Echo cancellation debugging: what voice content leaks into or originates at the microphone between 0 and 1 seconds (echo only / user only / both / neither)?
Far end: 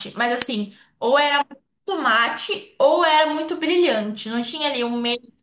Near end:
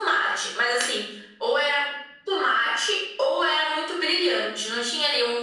echo only